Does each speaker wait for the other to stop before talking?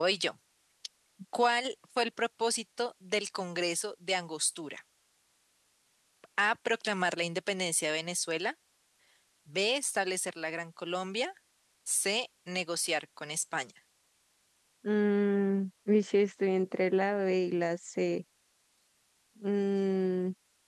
Yes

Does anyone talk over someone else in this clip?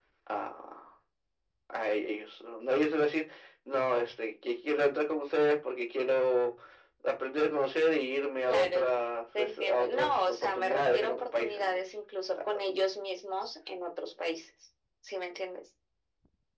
Yes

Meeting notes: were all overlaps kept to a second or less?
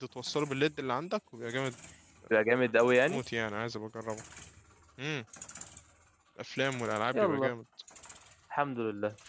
Yes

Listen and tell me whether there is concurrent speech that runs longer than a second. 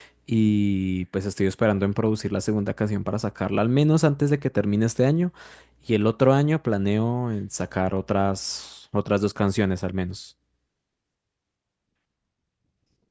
No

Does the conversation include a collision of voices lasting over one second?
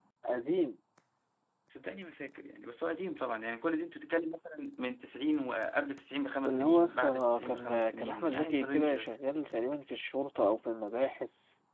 Yes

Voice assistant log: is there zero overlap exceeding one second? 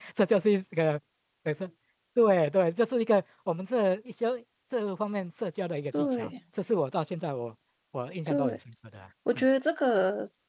Yes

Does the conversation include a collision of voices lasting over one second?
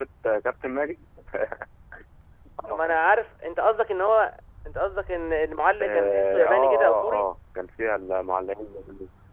Yes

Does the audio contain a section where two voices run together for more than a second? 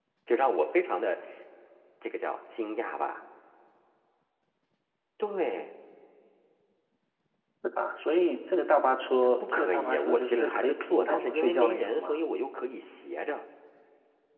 Yes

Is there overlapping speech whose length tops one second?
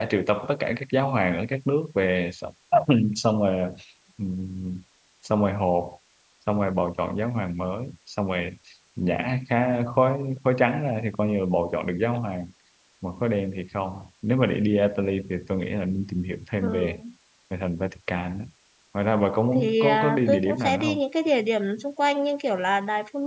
Yes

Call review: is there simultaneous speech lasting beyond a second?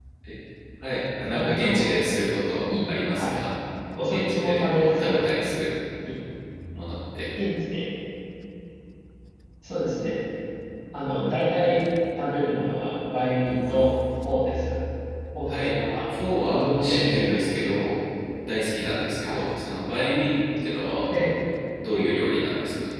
Yes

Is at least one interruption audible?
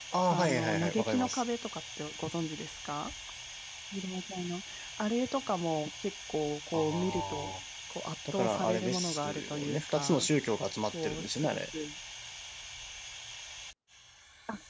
Yes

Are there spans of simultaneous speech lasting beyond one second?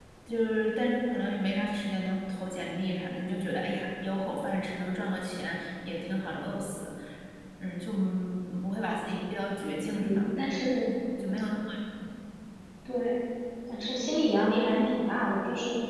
No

